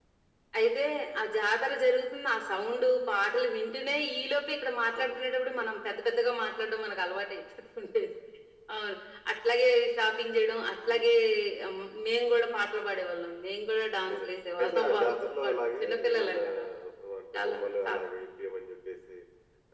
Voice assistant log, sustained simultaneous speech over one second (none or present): present